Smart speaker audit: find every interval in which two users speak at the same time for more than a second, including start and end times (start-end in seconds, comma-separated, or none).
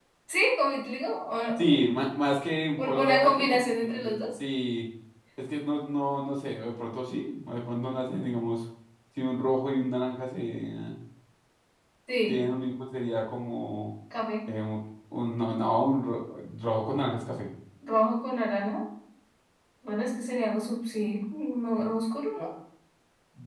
2.8-4.2